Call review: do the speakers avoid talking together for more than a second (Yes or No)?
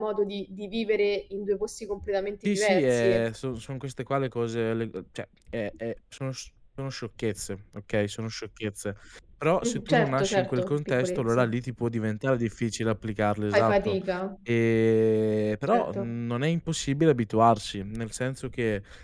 No